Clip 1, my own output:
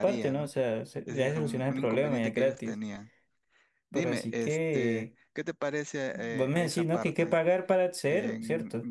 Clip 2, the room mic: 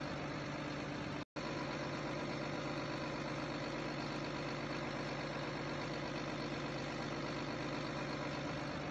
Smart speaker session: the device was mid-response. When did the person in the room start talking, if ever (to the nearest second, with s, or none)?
none